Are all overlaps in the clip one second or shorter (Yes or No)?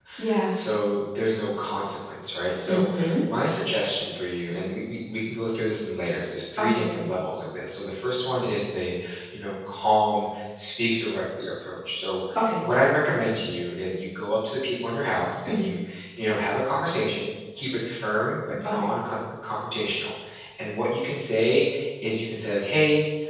Yes